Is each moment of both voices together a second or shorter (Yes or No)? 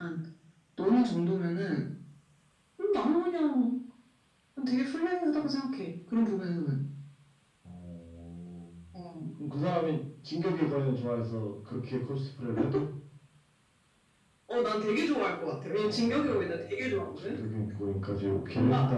No